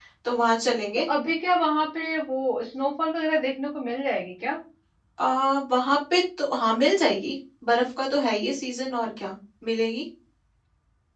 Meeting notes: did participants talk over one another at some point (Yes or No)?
No